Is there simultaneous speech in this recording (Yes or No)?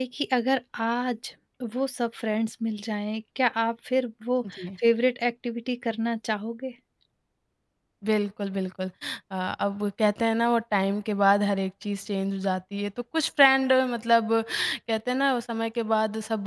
No